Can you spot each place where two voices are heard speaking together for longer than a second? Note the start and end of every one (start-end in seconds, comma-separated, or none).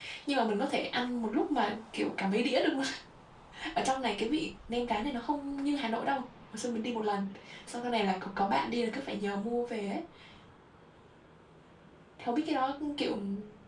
none